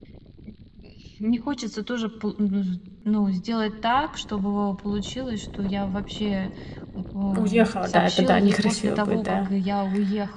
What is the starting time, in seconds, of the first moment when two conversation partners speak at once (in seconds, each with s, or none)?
7.3 s